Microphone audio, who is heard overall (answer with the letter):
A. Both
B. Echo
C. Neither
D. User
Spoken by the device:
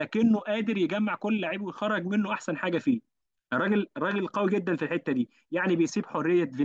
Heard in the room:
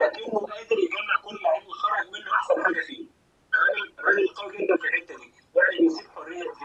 B